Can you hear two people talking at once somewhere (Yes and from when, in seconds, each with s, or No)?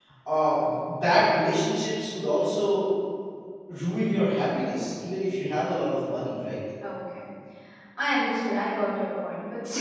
No